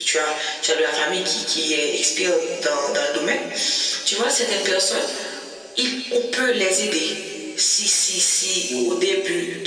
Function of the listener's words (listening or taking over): listening